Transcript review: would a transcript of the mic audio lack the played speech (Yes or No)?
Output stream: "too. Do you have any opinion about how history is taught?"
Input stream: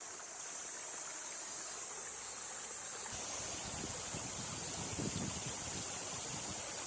Yes